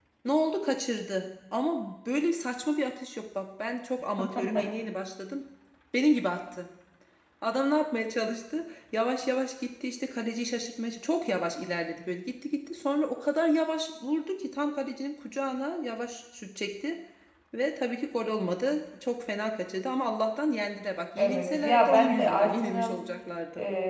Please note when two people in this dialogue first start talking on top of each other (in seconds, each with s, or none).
21.2 s